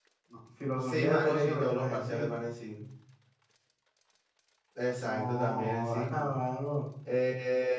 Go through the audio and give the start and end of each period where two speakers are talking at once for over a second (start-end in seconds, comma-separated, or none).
0.8-2.5, 5.0-6.3